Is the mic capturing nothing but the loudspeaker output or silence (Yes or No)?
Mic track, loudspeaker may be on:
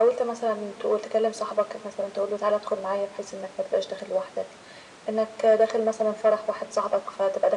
Yes